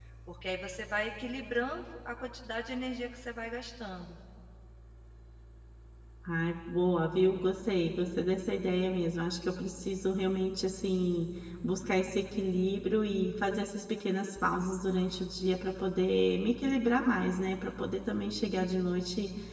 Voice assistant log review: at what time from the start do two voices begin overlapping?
none

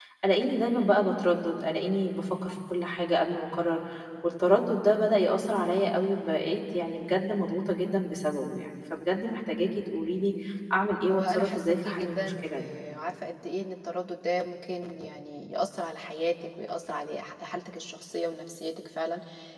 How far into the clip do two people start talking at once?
11.1 s

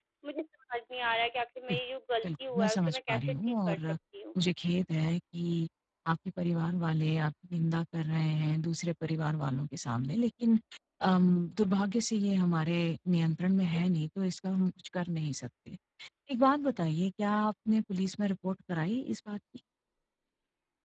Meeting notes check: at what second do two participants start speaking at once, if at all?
2.2 s

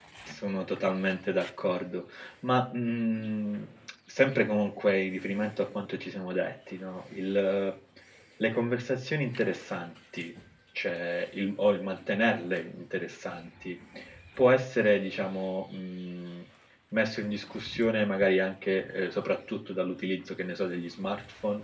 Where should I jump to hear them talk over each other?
none

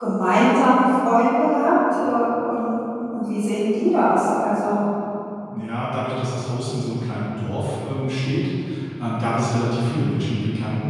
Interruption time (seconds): none

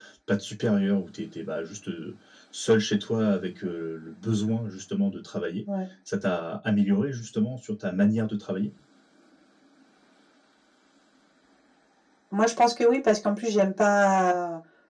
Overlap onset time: none

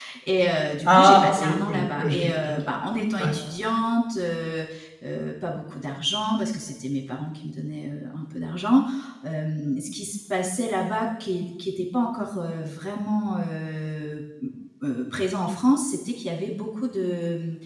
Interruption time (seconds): 0.8 s

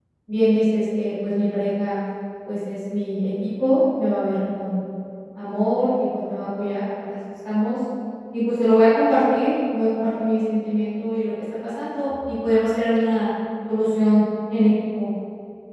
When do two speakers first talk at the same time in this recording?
none

